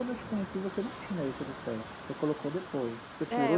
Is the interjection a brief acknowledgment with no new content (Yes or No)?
No